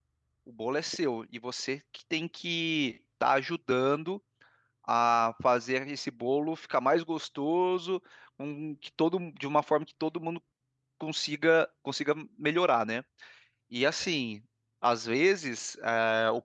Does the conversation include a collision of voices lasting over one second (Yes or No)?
No